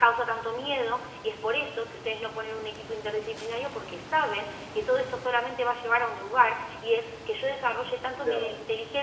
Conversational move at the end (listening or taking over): listening